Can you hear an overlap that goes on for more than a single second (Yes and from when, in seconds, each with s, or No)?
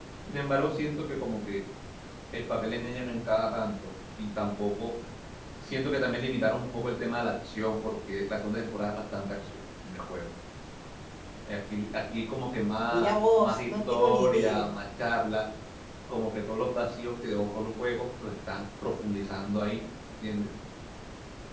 Yes, from 12.9 s